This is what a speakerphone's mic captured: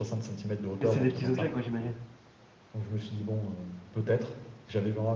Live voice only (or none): mais c'est des petits objets quoi, j'imagine?